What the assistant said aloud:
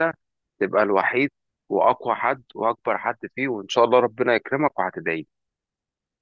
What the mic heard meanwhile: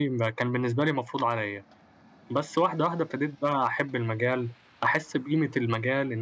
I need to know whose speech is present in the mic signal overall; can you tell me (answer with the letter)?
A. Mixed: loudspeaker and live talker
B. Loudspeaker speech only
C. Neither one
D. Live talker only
D